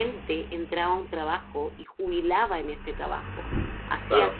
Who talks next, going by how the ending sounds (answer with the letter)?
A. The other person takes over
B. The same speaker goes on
B